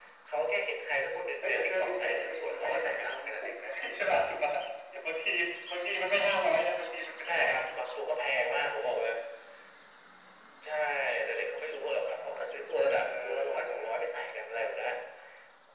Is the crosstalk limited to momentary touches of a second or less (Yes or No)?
No